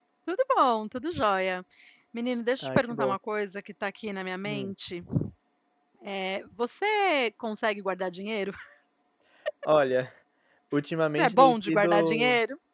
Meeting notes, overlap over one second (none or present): present